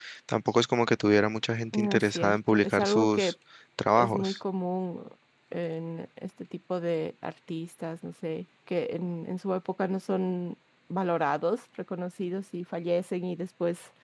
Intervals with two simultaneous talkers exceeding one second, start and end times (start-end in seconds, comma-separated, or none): 1.7-3.3